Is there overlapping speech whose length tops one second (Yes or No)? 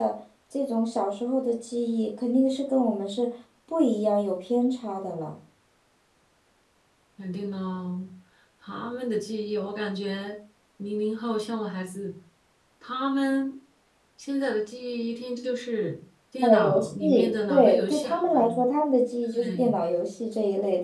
Yes